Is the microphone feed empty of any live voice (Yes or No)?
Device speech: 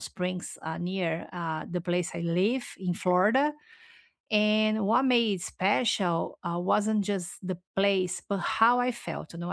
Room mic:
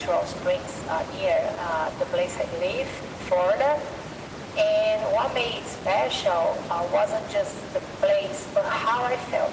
Yes